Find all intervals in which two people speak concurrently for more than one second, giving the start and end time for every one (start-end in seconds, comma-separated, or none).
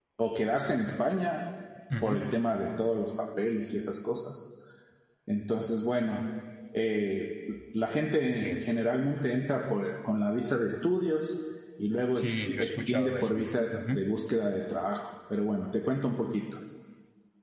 12.2-14.1